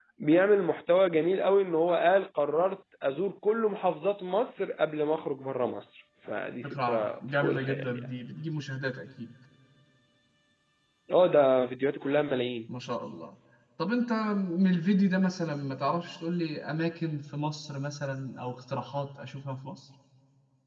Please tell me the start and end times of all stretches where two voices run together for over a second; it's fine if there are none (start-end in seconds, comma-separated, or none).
6.6-8.1